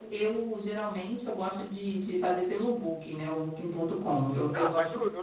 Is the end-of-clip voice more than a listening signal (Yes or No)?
Yes